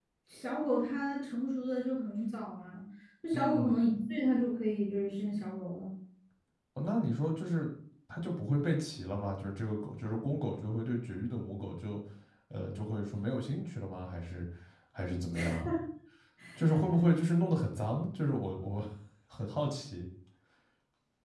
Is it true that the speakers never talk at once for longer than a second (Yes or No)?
Yes